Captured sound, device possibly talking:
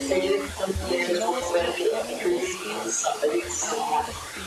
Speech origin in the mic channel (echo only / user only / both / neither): both